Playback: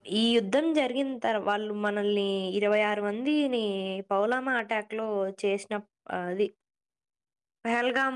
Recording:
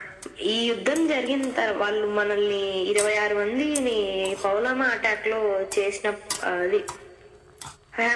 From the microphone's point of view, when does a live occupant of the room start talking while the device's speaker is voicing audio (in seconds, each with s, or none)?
none